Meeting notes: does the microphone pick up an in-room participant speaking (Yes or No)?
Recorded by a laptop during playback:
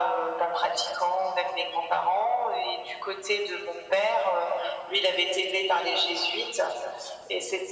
No